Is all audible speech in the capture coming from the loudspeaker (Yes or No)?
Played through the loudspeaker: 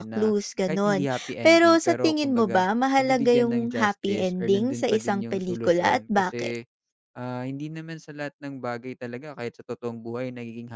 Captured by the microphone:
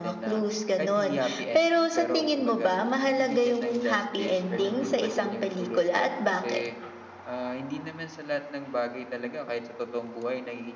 Yes